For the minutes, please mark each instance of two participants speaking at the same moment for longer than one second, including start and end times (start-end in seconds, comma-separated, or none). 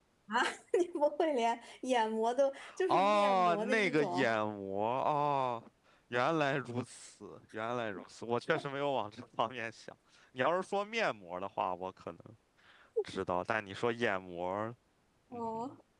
2.9-4.3